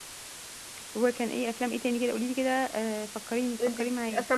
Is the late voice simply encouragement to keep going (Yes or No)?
No